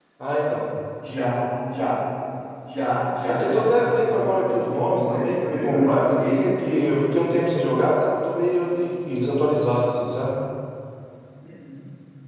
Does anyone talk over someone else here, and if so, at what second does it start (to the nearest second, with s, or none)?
3 s